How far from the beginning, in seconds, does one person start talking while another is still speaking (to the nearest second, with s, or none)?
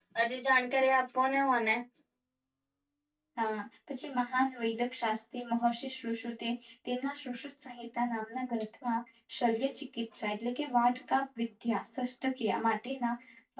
none